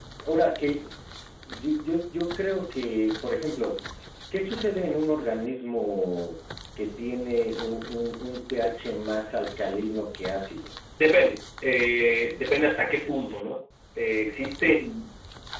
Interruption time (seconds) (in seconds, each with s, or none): none